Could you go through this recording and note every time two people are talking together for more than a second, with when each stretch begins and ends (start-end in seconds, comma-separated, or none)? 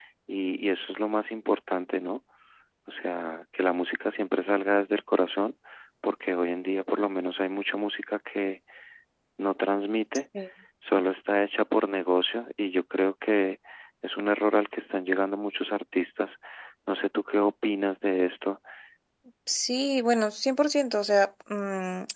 none